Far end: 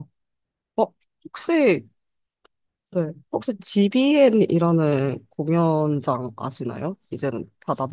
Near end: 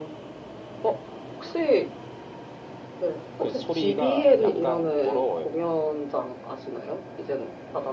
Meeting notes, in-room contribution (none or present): present